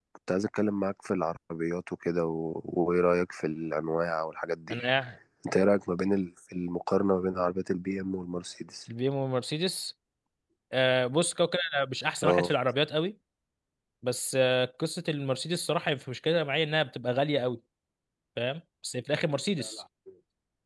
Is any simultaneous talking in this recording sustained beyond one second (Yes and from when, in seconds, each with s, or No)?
No